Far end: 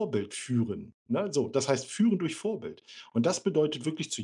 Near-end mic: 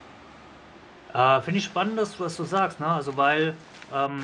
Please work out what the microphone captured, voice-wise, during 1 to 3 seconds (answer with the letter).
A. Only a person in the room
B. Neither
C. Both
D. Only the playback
A